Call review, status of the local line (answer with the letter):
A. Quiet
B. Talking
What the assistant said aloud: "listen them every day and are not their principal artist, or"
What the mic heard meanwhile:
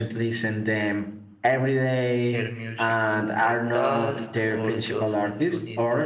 B